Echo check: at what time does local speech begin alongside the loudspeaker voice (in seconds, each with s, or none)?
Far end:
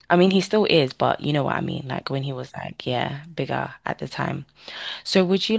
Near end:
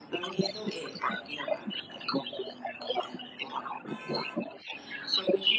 none